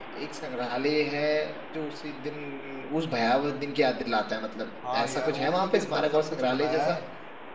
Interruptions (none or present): present